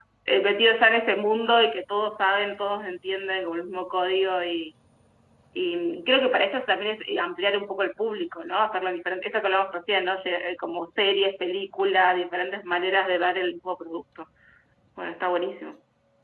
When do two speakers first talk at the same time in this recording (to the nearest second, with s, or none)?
none